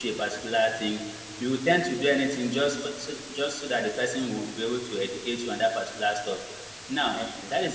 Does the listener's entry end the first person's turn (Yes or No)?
No